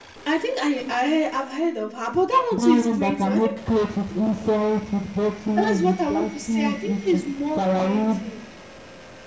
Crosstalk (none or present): present